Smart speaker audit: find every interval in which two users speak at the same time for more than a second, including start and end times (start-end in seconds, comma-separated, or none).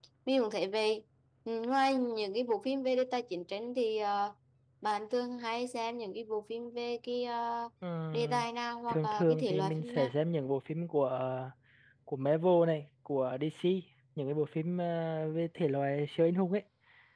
8.9-10.1